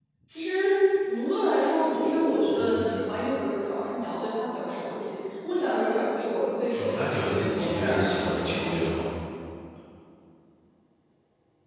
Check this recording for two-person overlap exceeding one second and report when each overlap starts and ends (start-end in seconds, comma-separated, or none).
6.8-9.1